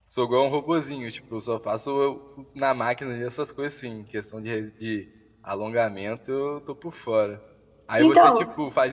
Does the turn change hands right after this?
No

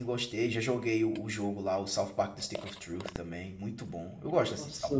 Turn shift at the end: Yes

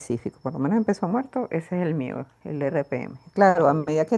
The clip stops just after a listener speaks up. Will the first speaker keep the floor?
Yes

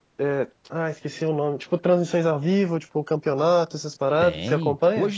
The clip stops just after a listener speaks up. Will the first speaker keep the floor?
No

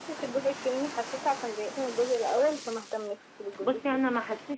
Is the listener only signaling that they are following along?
No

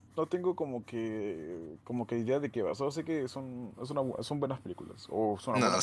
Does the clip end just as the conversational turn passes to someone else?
Yes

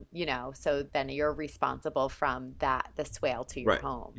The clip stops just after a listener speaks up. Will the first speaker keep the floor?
No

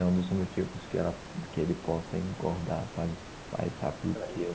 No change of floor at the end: Yes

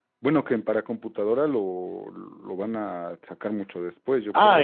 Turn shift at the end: Yes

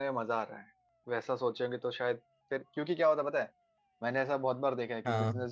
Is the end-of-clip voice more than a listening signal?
No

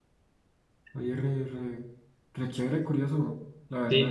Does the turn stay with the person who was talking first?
No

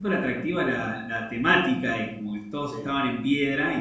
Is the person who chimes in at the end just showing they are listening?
Yes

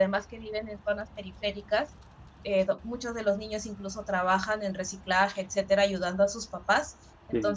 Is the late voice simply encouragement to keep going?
Yes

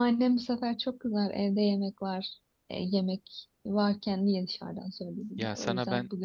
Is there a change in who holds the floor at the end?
Yes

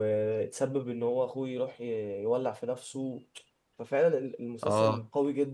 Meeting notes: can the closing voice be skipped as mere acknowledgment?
Yes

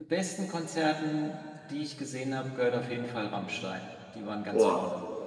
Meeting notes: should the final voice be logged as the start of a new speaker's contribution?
Yes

